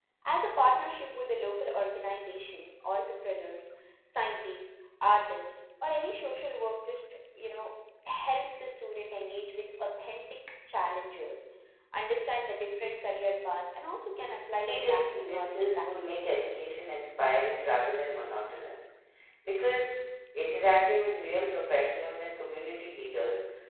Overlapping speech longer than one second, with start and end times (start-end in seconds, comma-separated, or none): 14.6-16.3